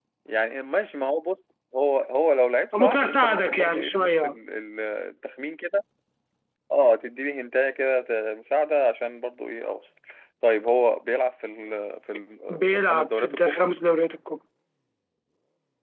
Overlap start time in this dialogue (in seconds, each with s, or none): 2.8 s